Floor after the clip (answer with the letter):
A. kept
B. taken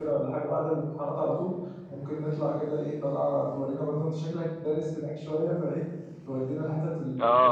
B